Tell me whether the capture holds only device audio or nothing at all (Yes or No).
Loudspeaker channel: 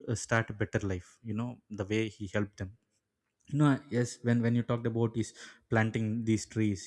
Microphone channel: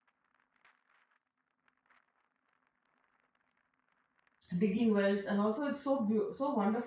No